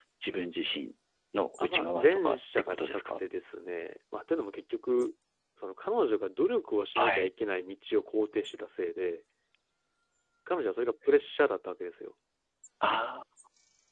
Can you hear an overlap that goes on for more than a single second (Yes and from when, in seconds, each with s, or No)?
Yes, from 1.6 s